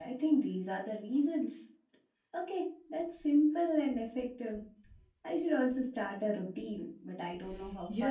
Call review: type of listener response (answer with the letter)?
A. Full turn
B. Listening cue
A